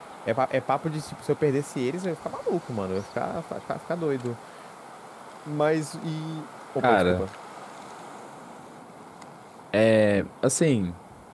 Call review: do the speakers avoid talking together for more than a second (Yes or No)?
Yes